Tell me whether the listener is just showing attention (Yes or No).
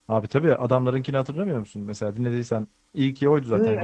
No